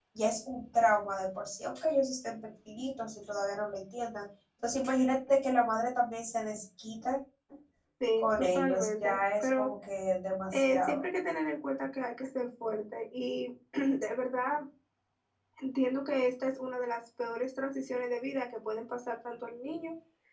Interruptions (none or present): present